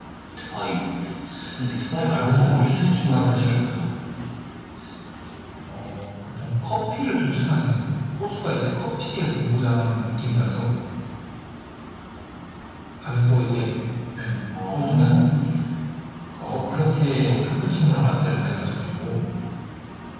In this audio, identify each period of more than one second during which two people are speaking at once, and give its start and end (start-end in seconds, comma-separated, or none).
2.1-3.6